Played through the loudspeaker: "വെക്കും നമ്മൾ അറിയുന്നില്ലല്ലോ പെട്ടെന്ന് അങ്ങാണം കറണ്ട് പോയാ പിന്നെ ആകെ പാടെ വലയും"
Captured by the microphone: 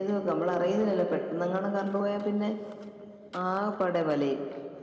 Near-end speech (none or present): none